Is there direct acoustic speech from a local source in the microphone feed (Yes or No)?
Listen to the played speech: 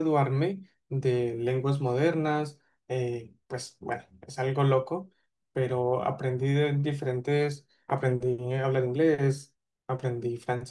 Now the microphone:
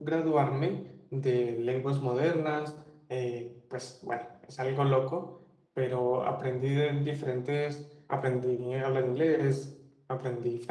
No